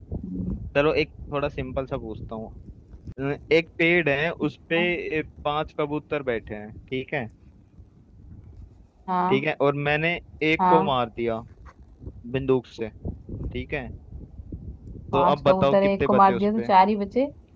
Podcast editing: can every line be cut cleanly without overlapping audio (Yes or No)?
No